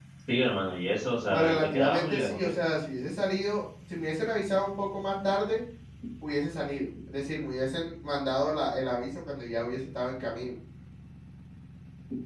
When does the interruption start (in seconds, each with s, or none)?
1.3 s